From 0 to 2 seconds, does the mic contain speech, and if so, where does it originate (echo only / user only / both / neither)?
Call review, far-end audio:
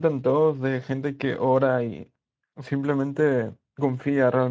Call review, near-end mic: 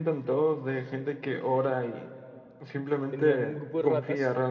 echo only